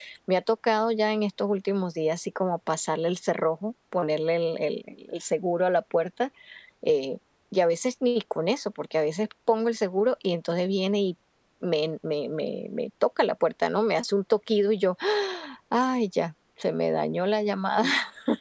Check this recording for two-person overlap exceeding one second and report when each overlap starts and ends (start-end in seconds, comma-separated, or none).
none